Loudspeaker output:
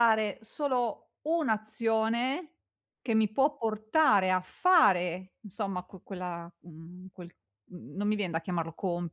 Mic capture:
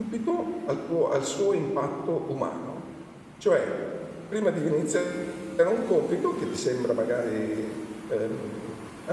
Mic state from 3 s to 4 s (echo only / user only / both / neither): user only